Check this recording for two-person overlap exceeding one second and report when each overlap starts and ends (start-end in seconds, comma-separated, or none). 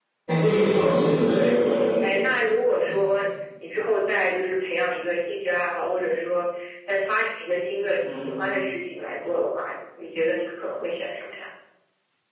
none